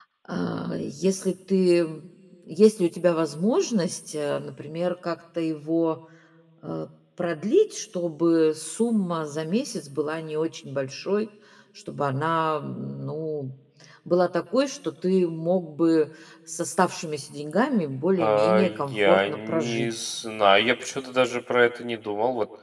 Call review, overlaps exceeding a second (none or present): present